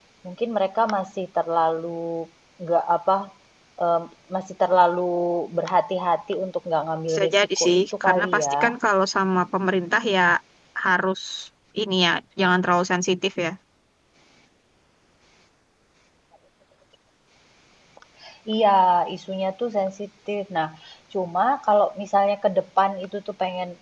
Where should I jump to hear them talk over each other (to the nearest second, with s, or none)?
7 s